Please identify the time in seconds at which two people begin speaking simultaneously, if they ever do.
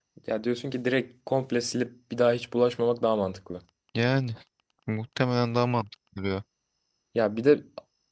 none

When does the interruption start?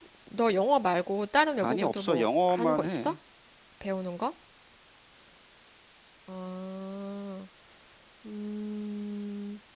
1.6 s

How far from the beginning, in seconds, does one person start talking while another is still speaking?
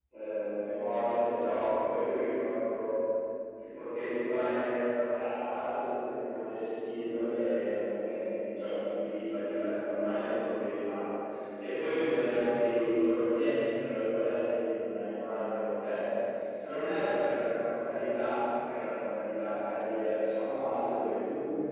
none

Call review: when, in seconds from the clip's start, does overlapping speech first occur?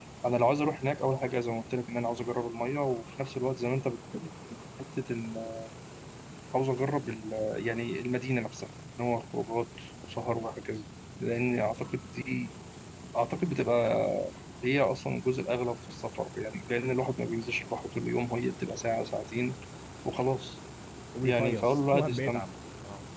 21.2 s

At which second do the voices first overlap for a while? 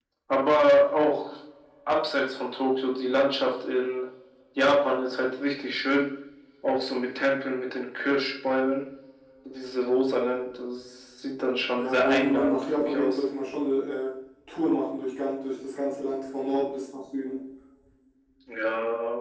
11.8 s

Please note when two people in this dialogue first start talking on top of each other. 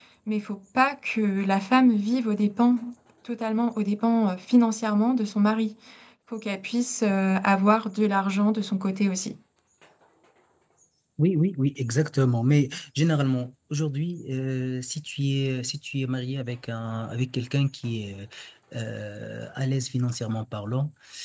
none

